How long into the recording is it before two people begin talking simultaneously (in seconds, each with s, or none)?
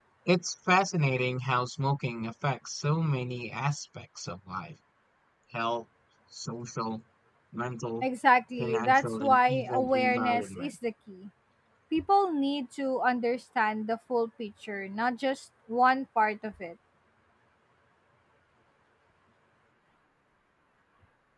8.6 s